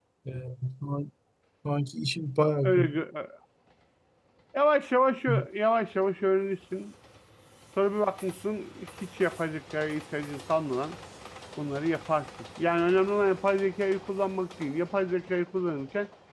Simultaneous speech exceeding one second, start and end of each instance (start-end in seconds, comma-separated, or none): none